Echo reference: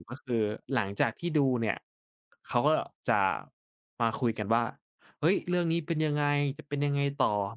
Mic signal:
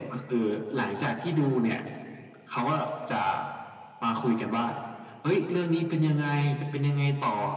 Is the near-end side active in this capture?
No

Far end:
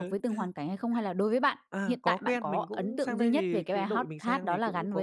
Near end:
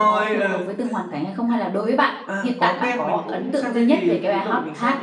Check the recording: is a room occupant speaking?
No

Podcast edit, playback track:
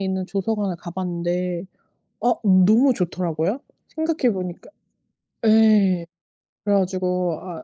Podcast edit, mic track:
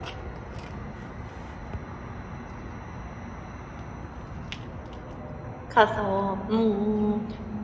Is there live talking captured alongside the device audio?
Yes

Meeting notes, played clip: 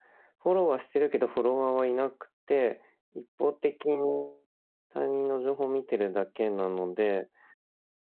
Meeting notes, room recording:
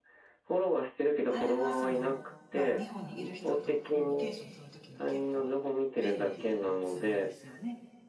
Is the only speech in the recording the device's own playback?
No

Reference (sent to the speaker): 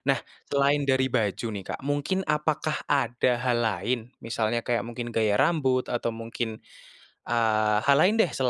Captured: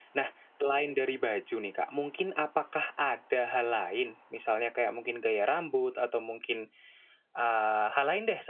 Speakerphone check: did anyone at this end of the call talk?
No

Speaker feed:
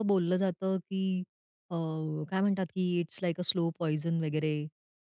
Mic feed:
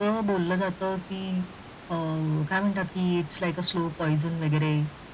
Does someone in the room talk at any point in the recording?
No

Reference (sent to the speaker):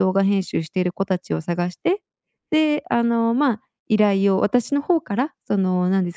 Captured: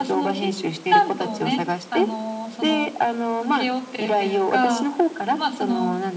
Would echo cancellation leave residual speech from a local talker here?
Yes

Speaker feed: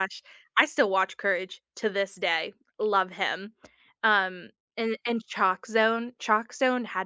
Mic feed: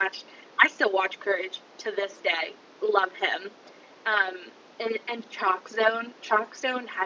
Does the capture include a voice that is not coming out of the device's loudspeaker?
No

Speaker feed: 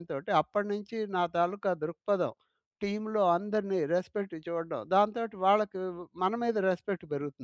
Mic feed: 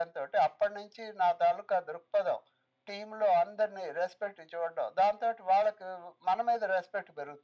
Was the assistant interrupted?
No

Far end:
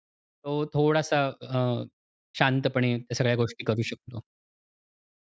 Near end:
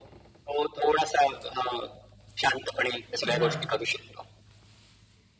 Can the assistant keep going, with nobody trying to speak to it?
No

